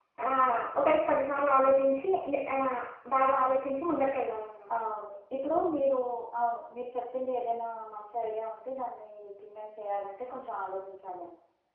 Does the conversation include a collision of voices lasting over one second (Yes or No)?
No